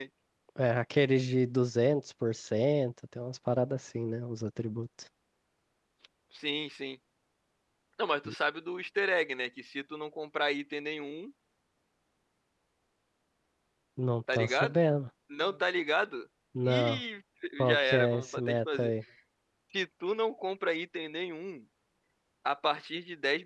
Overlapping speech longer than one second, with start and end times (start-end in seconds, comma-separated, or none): 17.7-18.9